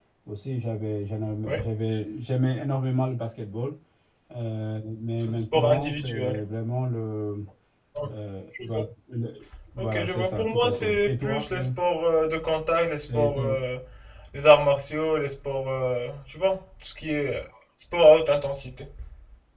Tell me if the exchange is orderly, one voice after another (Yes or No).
No